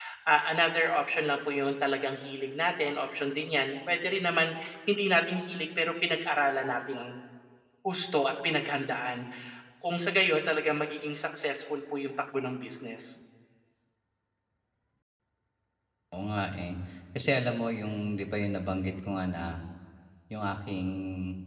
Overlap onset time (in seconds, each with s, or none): none